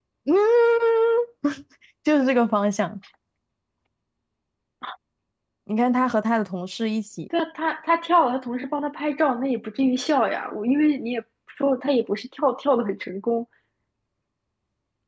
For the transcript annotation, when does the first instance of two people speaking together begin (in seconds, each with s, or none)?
none